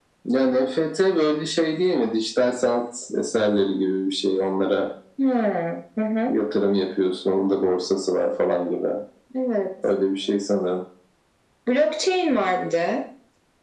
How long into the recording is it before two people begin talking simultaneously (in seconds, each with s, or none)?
none